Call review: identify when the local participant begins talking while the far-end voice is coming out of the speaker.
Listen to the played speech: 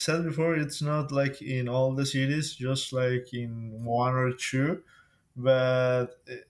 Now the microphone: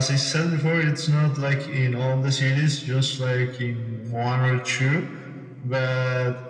none

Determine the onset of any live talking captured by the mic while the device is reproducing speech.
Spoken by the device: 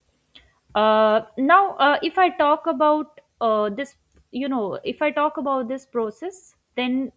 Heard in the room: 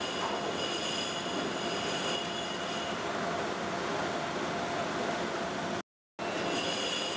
none

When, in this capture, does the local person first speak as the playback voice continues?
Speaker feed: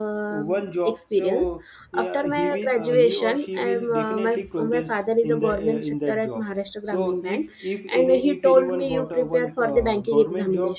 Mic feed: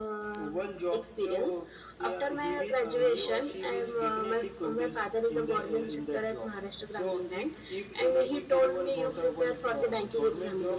none

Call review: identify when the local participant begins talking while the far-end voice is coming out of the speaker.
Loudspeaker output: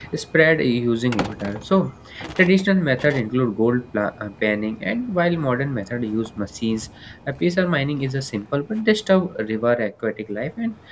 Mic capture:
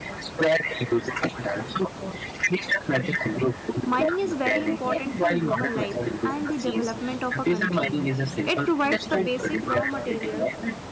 4 s

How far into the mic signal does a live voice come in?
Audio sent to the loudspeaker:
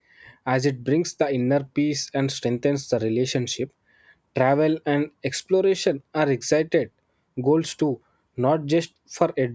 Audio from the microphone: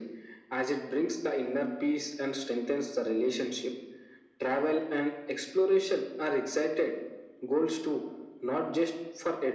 none

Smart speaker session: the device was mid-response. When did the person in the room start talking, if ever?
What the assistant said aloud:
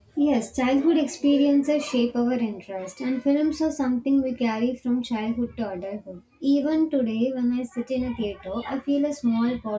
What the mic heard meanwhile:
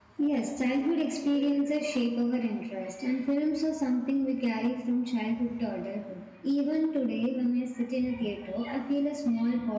none

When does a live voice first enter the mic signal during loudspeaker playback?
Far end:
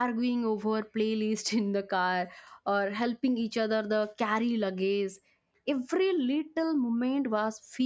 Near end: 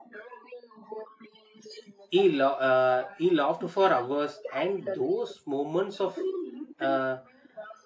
2 s

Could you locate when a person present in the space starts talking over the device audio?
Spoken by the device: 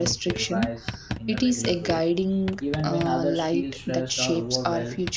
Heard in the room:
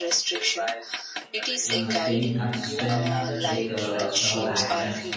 2 s

